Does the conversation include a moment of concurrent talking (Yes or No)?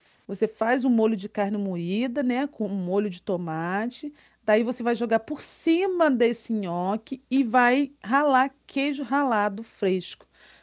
No